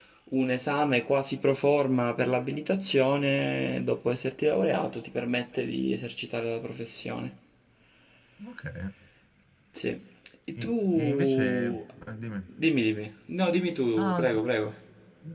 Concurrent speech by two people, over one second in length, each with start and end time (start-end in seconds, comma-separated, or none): 10.6-11.8